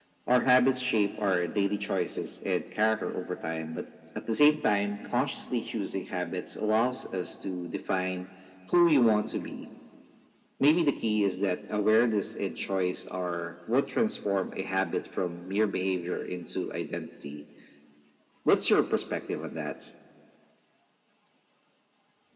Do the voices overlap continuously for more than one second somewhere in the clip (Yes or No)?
No